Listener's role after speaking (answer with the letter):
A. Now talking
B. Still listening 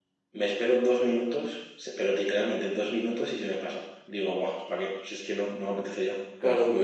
A